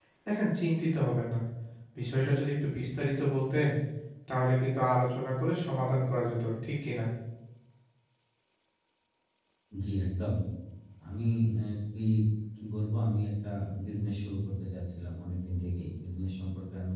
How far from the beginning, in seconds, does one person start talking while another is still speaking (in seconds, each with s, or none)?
none